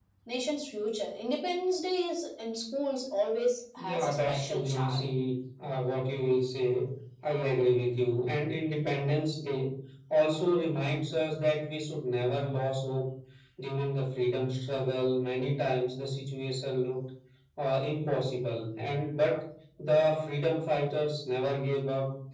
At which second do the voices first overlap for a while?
4 s

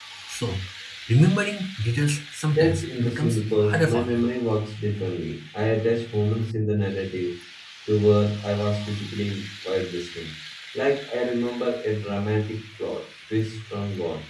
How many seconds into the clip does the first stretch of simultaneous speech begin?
3 s

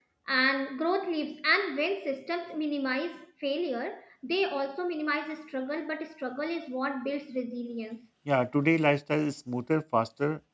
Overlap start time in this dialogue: none

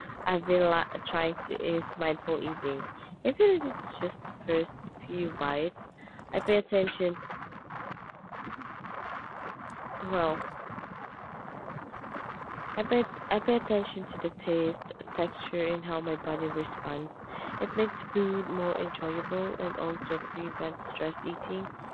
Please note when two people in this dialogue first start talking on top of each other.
none

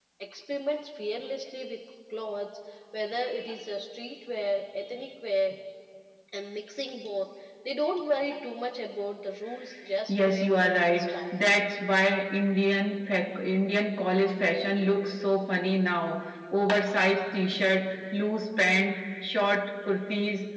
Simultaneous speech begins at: 10 s

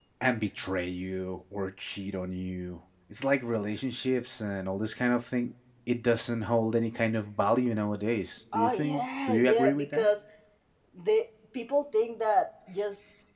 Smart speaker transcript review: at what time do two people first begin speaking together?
9 s

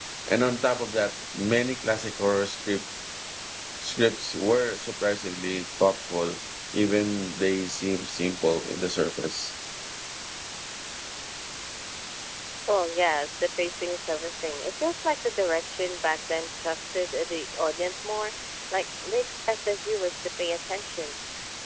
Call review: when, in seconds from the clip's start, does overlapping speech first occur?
none

